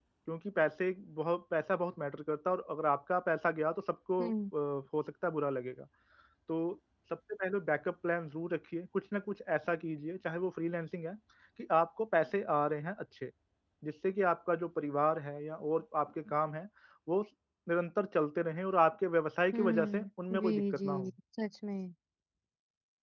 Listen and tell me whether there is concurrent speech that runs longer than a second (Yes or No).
Yes